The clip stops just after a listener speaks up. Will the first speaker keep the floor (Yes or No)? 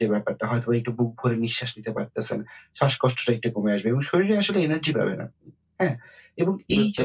Yes